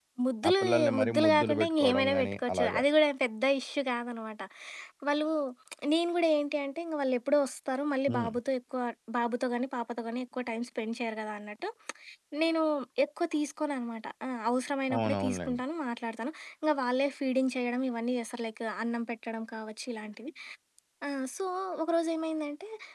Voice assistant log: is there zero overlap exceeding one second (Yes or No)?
No